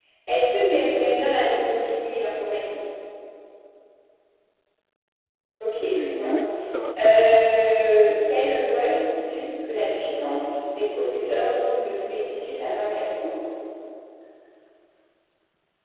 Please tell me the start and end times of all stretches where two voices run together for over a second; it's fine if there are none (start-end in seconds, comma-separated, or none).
none